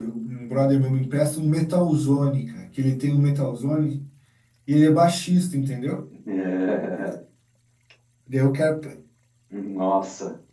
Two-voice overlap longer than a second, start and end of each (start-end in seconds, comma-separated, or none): none